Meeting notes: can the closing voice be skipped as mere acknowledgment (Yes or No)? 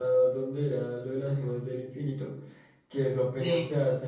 Yes